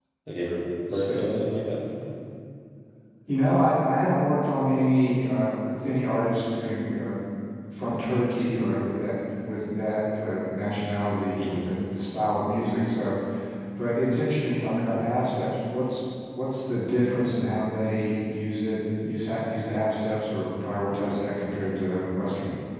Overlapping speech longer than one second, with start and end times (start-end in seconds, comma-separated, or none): none